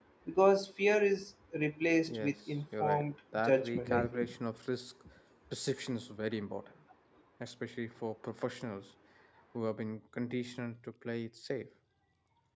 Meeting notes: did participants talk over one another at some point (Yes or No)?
Yes